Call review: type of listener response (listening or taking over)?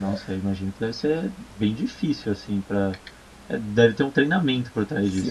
taking over